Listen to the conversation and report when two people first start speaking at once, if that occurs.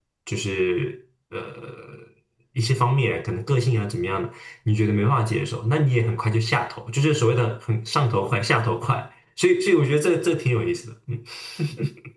none

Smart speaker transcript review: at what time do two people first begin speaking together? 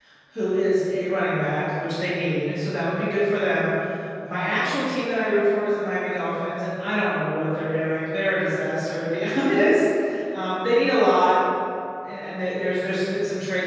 none

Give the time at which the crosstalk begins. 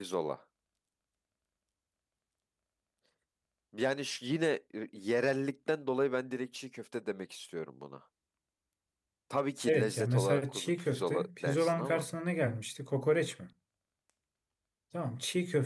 9.7 s

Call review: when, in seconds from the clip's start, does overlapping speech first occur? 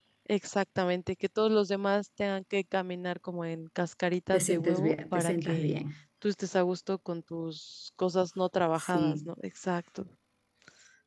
4.3 s

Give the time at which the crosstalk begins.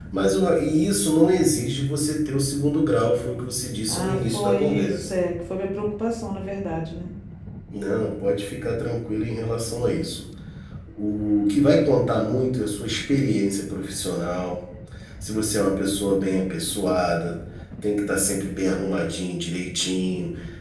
3.9 s

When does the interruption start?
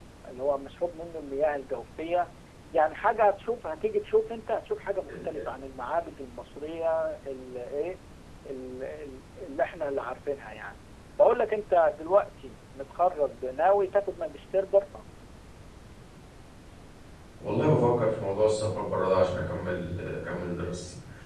none

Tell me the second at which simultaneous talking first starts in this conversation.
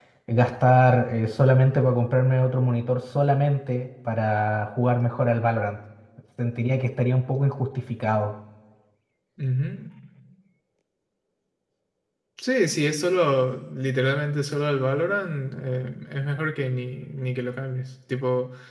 none

